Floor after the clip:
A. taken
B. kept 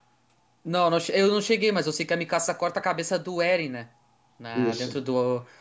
B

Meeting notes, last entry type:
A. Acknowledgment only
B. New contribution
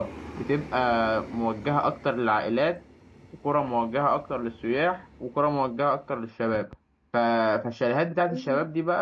A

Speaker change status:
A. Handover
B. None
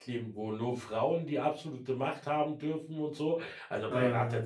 B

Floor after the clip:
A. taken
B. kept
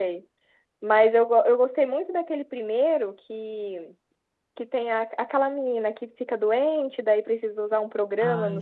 B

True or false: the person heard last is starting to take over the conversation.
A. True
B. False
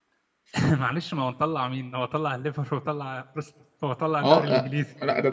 A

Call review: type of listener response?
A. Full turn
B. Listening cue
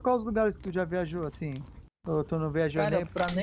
A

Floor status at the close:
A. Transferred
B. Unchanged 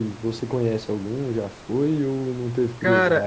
A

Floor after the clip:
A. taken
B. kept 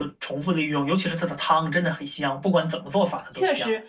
A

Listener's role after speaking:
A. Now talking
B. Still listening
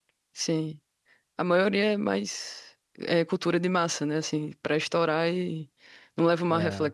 B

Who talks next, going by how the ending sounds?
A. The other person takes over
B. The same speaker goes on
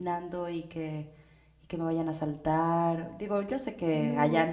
B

